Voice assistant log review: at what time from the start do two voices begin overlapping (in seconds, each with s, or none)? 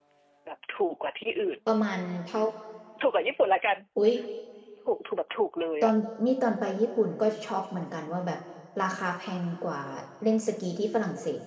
none